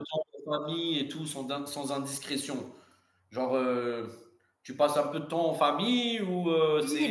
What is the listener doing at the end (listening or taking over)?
taking over